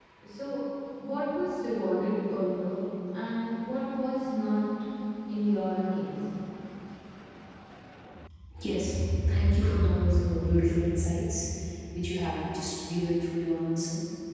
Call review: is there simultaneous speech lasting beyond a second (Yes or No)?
No